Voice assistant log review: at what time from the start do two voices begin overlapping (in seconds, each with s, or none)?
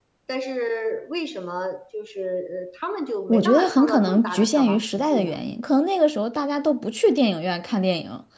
3.3 s